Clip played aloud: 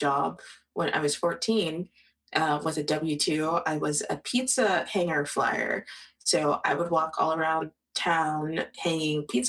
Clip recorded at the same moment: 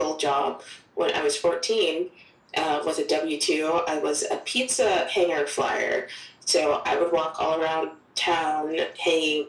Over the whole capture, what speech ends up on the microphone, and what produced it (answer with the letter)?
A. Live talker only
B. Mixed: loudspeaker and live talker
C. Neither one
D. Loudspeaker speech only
D